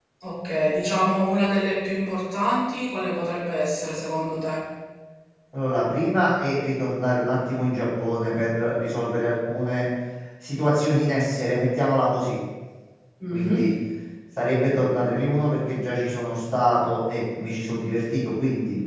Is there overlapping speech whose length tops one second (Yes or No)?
No